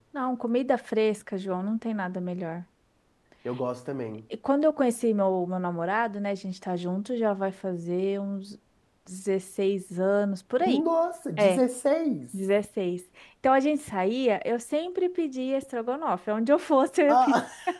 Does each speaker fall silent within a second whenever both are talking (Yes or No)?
Yes